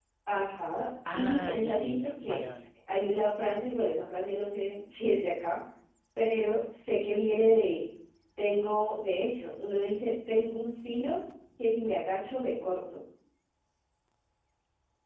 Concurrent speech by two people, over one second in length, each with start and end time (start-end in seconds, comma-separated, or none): 1.1-2.4